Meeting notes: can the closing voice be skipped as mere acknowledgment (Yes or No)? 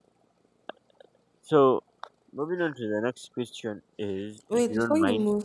No